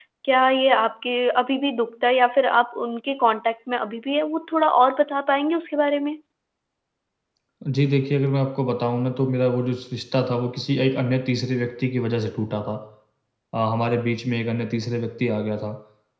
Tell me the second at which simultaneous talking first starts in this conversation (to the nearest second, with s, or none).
none